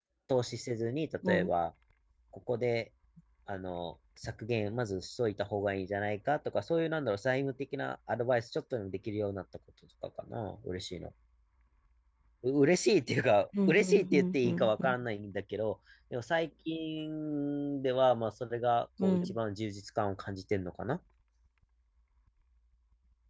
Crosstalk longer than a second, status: present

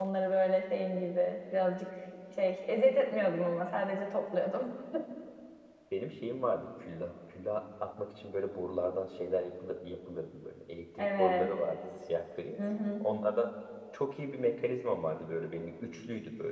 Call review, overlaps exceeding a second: none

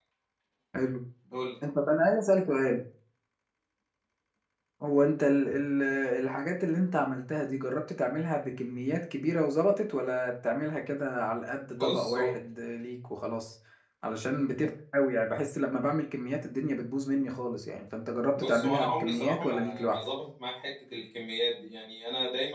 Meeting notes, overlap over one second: present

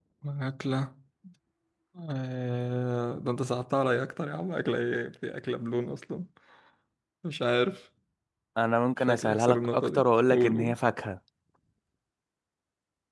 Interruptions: present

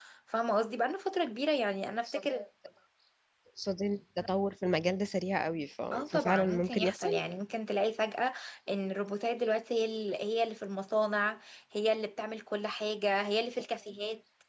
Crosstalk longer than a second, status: present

